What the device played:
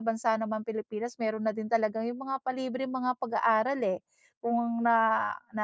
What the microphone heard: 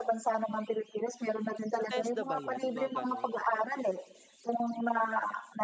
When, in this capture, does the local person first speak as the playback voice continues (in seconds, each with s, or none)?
1.7 s